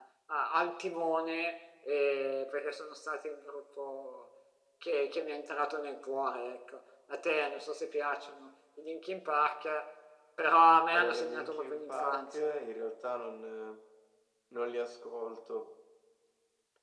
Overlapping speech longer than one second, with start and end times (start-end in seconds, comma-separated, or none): 10.9-12.5